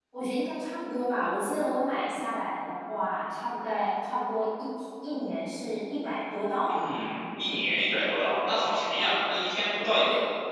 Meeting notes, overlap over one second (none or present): none